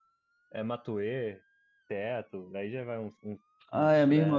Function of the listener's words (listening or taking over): taking over